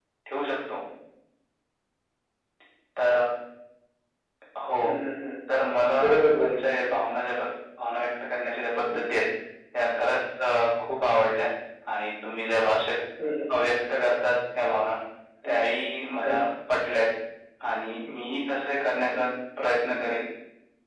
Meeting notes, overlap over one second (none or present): none